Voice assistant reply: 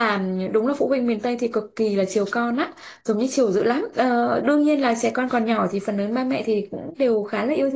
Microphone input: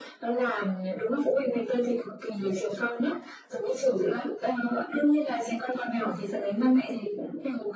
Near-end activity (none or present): none